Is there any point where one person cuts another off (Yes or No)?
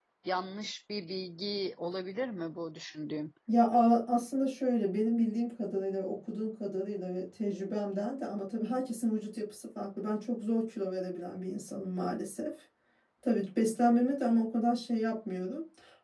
No